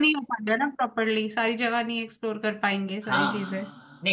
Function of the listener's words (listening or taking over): taking over